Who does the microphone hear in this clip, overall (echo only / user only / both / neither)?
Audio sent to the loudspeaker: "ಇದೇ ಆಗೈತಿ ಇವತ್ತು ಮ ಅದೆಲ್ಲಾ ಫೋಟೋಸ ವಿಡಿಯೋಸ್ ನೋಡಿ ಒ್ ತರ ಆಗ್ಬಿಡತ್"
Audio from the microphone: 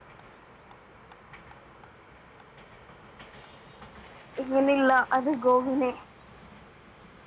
user only